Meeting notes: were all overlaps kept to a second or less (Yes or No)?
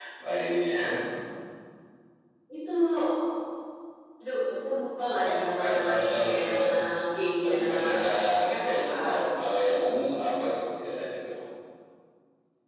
No